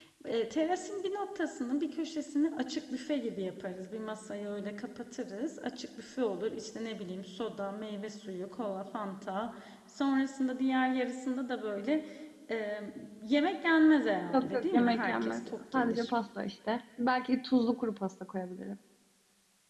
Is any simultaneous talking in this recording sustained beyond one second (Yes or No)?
Yes